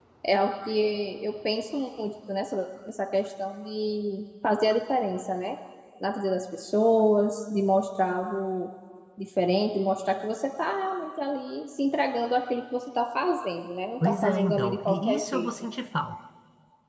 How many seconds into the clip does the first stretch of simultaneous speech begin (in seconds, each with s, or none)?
14.0 s